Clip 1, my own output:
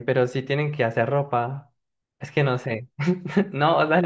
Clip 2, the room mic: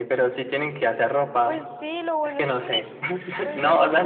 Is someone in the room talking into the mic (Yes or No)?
Yes